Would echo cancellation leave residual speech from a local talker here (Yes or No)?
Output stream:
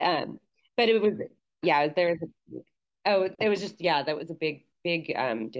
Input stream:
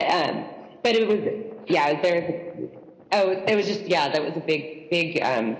No